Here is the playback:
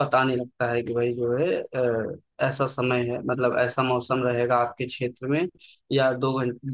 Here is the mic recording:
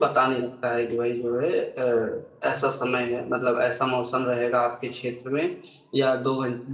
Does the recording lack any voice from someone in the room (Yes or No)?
Yes